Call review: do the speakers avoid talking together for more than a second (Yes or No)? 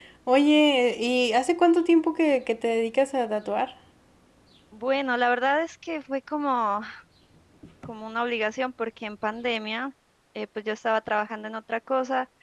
Yes